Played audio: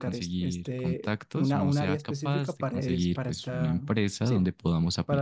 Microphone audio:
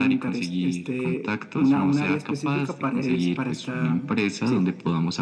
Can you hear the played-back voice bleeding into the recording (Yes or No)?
Yes